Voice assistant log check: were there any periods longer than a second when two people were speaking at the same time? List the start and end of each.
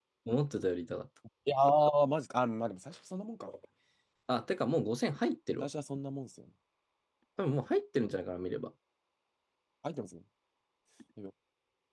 none

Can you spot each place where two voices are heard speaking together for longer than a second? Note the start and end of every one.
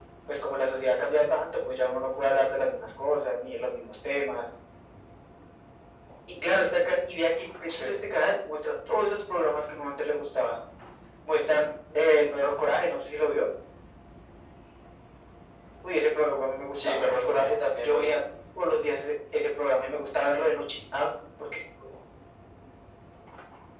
16.9-18.1

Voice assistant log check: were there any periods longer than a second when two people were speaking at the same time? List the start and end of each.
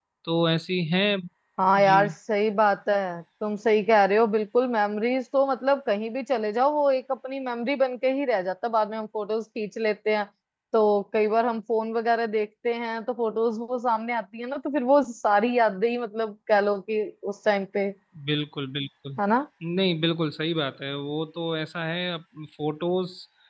none

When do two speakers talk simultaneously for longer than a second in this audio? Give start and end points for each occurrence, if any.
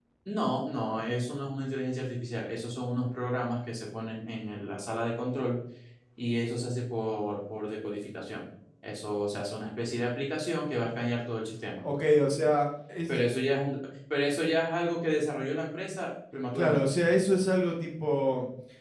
none

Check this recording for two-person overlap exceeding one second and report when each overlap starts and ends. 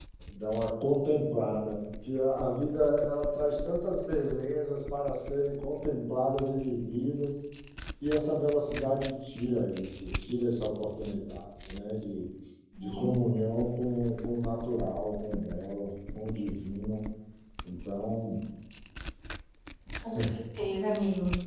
none

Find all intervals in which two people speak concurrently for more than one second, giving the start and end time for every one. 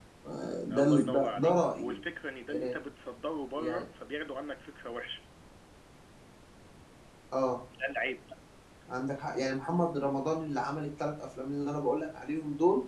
0.7-2.0

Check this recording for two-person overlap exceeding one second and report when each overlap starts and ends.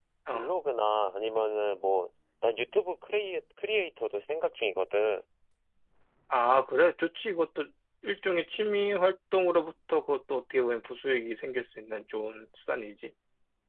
none

